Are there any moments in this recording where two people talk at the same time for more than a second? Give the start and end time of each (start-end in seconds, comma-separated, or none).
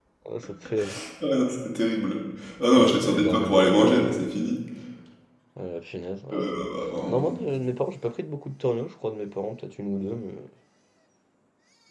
2.7-4.3